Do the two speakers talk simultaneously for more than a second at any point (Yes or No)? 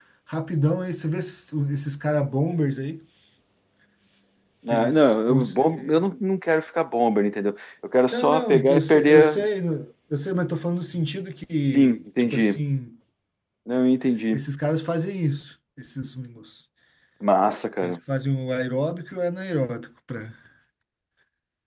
Yes